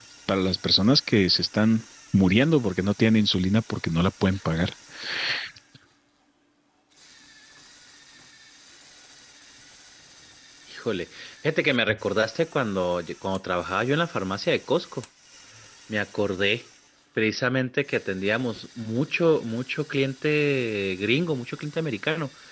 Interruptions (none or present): none